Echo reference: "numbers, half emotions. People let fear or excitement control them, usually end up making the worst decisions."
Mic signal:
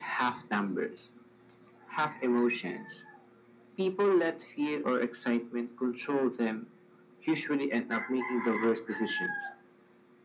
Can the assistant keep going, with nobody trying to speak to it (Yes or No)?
Yes